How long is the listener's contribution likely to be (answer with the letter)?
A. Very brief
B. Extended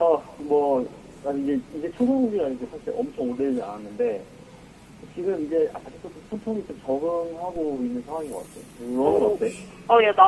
B